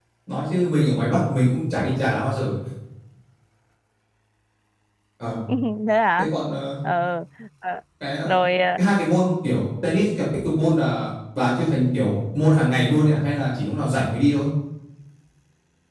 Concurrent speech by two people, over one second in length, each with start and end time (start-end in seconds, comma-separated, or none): none